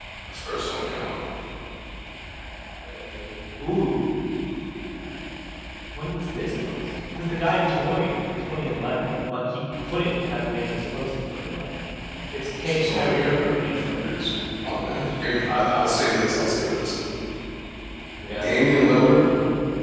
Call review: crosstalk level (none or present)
present